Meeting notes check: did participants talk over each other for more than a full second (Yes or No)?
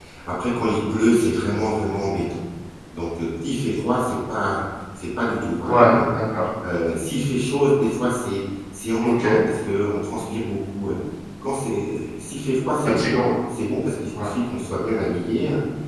No